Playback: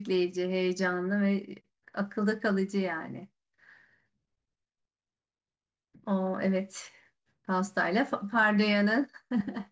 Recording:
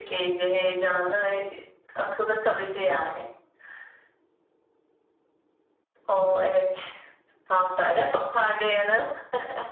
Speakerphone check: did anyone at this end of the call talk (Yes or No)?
No